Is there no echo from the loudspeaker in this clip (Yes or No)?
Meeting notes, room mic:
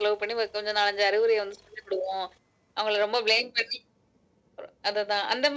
No